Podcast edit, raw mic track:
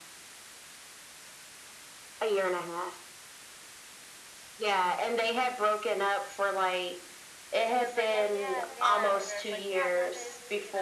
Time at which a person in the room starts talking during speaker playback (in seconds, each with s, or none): 7.7 s